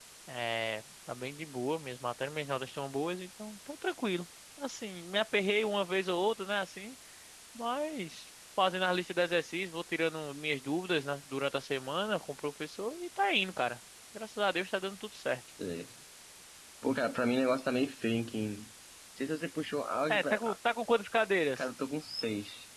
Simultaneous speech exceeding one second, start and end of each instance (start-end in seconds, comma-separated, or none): none